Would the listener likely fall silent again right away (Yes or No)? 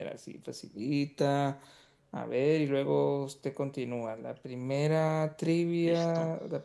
Yes